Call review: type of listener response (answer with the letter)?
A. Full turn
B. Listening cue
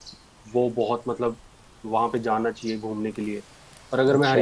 B